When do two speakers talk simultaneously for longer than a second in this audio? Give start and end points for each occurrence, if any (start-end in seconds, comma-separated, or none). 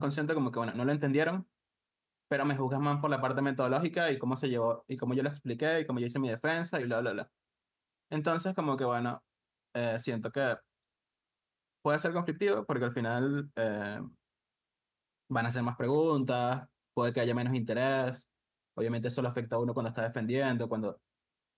none